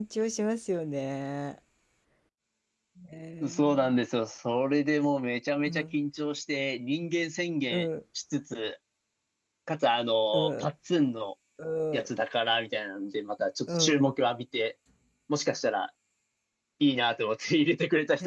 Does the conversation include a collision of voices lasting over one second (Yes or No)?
No